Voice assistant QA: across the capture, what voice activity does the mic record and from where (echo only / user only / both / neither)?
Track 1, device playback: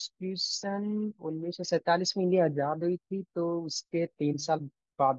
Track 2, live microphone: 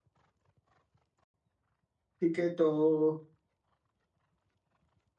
user only